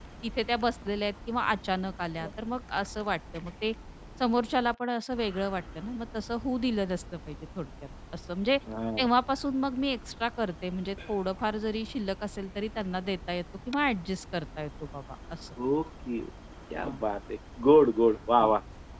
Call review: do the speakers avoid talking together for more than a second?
Yes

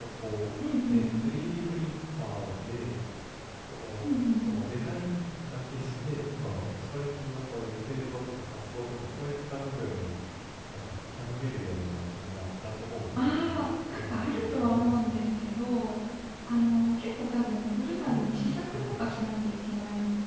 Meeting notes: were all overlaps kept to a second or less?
No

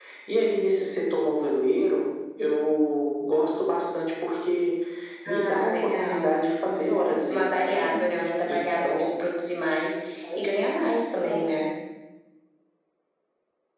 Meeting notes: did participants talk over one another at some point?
Yes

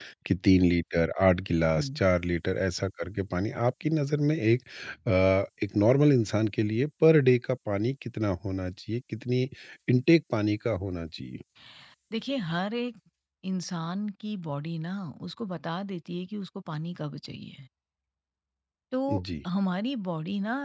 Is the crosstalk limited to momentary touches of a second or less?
Yes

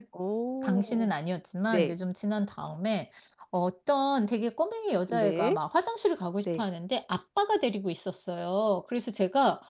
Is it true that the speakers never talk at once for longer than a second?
Yes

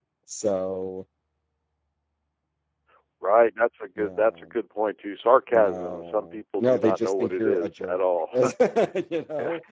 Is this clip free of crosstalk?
No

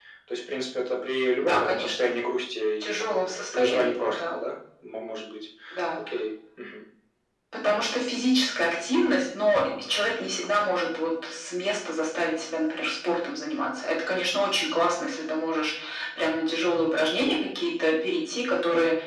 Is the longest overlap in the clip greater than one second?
Yes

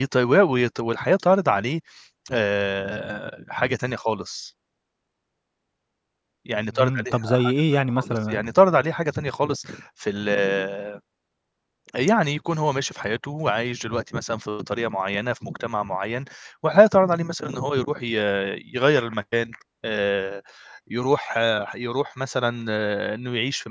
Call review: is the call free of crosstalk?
No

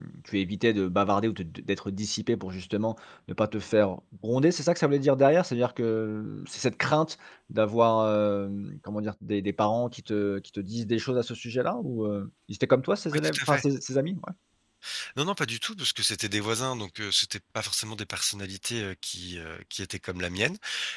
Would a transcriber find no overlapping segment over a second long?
Yes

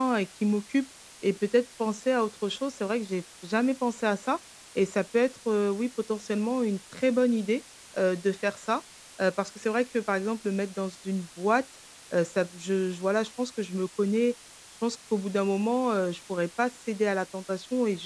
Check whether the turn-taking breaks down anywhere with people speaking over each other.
No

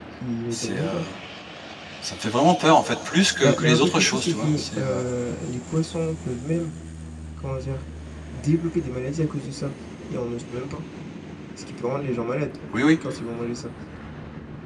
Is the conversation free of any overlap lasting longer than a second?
No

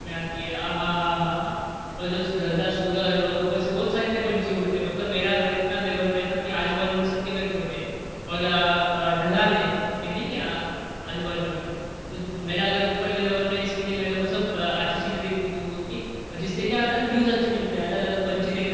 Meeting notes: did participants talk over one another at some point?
No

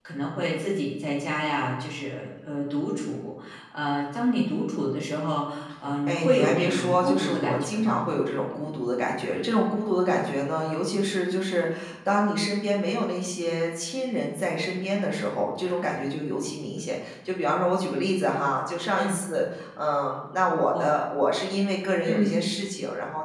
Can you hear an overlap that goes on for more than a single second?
Yes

